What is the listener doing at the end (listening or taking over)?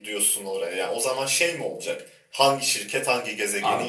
taking over